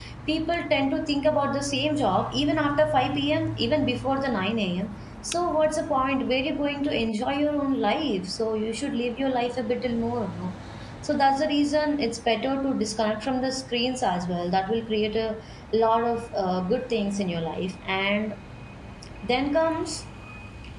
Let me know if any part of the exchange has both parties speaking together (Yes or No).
No